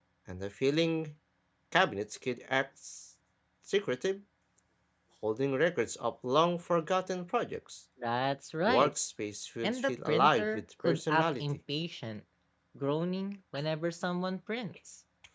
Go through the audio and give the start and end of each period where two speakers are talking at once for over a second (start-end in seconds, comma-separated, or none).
9.6-11.4